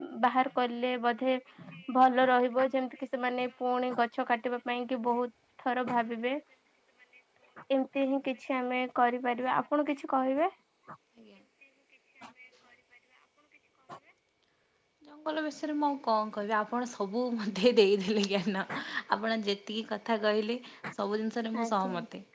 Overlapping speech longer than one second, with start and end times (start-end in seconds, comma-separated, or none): none